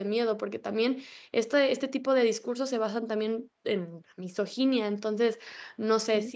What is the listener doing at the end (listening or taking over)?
listening